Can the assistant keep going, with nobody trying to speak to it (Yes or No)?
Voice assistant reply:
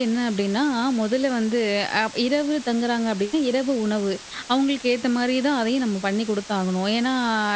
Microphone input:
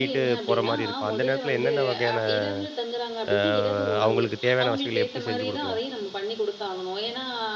No